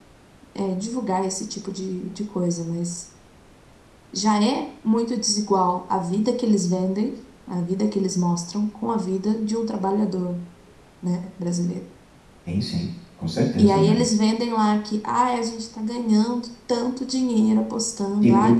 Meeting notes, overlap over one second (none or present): none